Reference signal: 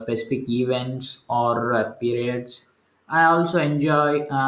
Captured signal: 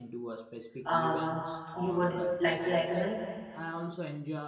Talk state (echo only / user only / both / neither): both